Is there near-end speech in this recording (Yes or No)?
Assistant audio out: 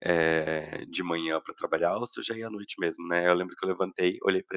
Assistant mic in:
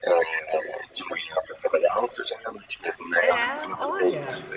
Yes